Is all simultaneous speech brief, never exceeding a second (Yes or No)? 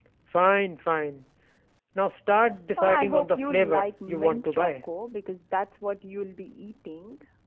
No